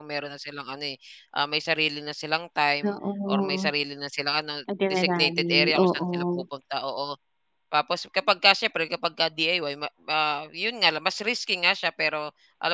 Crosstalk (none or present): present